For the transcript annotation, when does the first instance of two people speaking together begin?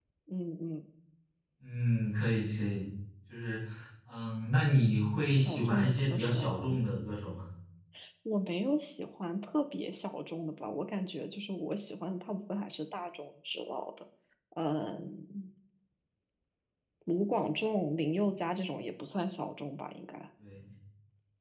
5 s

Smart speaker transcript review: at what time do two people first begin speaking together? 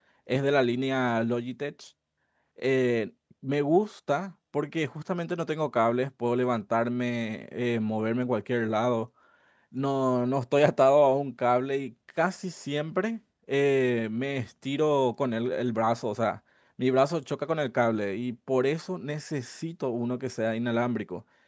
none

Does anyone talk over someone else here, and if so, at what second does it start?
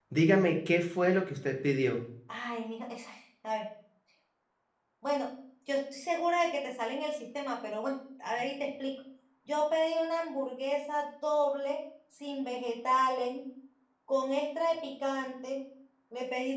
none

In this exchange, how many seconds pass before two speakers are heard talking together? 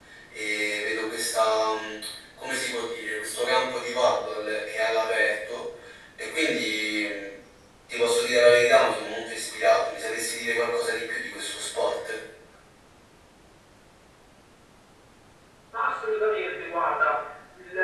none

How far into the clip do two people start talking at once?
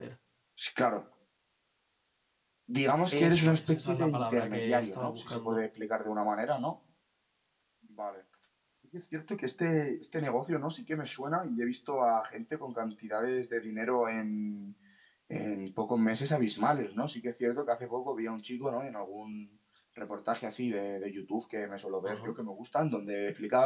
3 s

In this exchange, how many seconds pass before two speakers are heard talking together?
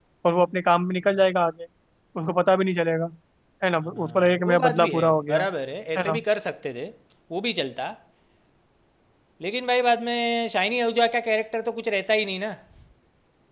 4 s

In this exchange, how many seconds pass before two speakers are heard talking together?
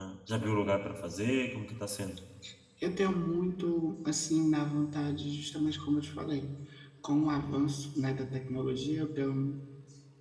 none

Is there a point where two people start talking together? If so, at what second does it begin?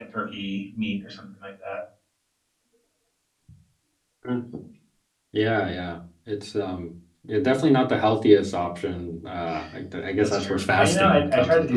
10 s

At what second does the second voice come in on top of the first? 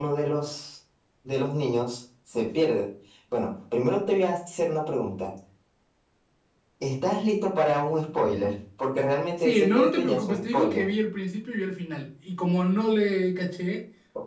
9 s

